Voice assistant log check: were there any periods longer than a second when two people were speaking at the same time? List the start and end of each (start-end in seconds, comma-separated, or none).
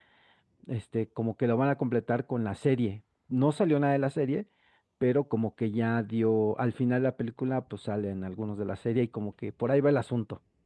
none